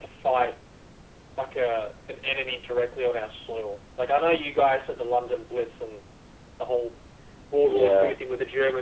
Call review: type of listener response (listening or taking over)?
listening